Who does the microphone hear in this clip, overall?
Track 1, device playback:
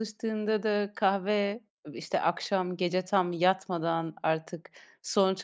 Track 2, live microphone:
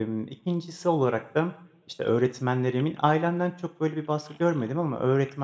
user only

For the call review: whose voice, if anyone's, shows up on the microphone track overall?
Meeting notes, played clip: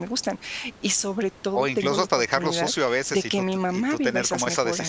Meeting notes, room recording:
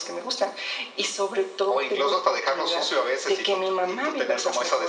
echo only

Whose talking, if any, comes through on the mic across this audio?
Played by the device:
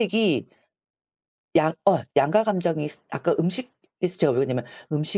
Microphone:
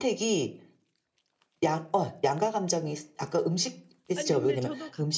both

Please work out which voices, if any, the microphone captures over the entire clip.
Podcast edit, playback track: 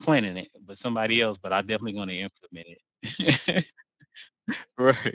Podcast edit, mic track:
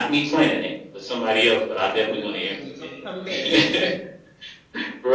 both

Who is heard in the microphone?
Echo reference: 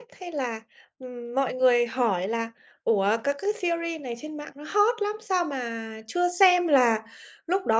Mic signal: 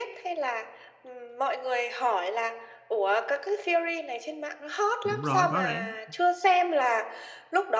both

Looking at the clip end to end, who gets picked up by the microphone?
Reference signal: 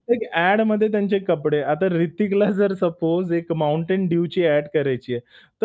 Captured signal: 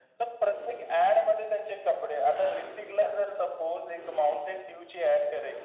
echo only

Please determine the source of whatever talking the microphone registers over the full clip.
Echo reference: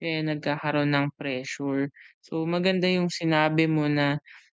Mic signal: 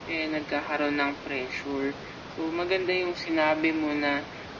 echo only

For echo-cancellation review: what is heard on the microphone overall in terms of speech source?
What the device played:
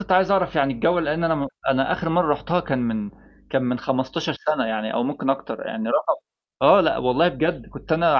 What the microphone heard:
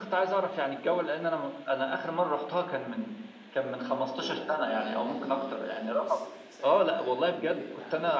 both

